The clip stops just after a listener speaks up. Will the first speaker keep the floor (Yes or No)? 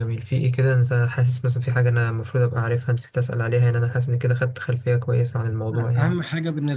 No